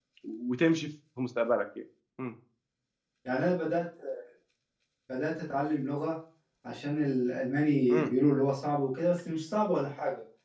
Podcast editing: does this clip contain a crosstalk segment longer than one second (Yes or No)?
No